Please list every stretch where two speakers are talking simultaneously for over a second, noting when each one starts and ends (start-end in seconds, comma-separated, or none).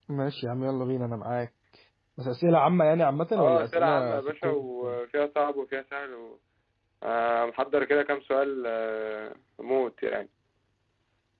3.4-4.6